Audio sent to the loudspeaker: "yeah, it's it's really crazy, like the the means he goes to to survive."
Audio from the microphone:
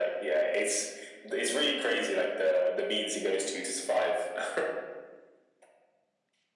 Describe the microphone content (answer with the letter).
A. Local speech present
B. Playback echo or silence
B